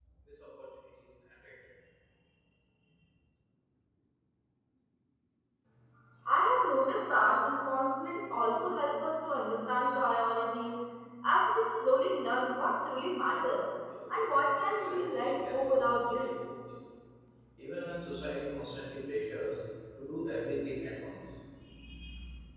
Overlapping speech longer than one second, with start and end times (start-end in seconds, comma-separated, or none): 14.3-16.3